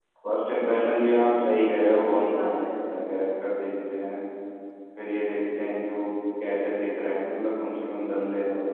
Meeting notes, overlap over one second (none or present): present